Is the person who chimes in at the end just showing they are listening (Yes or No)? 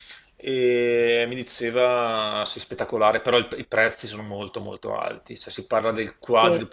Yes